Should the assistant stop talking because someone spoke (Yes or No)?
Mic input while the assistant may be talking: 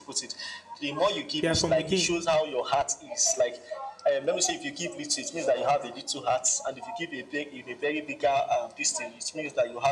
Yes